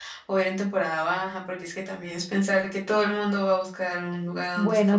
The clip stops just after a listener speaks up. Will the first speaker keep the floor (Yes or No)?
No